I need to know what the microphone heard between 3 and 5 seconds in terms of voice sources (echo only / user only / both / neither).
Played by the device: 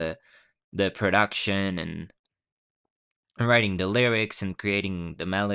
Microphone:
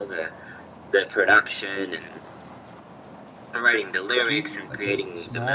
both